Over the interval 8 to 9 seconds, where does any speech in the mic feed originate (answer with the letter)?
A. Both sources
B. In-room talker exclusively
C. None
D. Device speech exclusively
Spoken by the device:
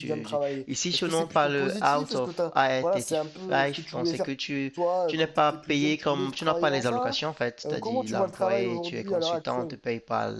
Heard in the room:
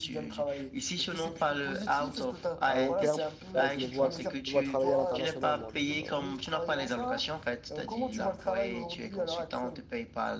D